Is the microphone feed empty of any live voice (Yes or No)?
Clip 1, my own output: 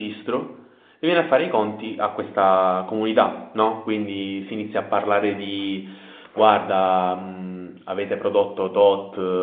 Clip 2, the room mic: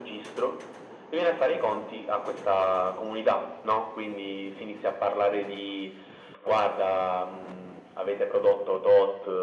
Yes